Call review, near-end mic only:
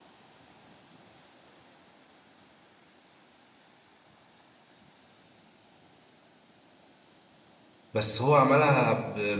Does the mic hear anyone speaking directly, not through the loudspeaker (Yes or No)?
Yes